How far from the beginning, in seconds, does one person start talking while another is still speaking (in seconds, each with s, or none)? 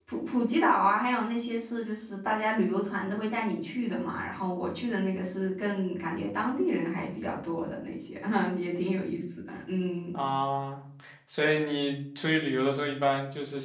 none